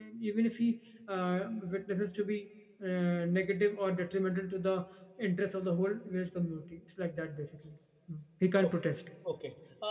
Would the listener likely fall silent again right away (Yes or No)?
No